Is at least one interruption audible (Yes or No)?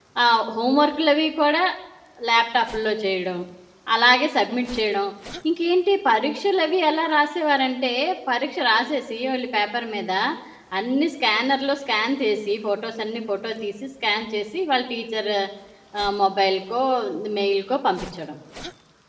No